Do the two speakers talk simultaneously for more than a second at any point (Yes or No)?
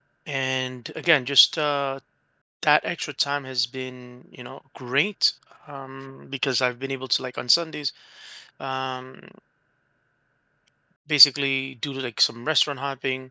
No